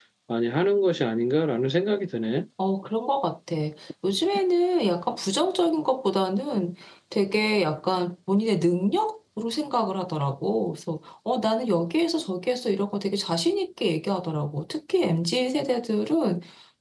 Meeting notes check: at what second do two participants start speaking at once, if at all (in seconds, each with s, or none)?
none